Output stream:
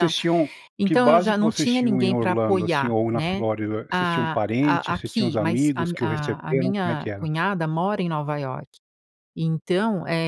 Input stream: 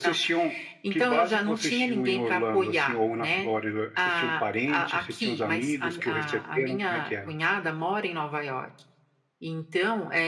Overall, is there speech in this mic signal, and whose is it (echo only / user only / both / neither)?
echo only